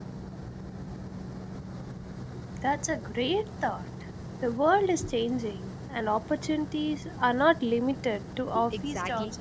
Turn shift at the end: Yes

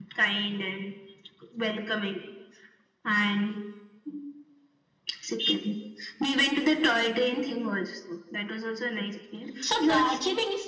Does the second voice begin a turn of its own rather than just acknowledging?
Yes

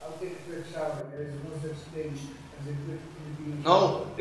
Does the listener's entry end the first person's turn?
Yes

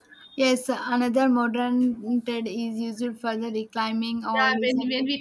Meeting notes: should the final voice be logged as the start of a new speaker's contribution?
Yes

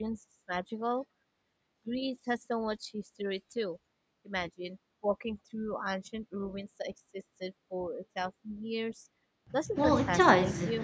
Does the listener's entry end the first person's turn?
Yes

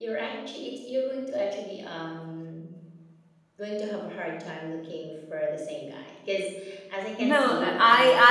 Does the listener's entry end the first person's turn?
Yes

